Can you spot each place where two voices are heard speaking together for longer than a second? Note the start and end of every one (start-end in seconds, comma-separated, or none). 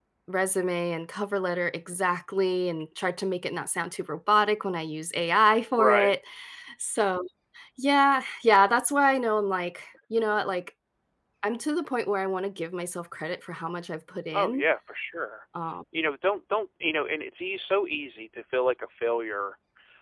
none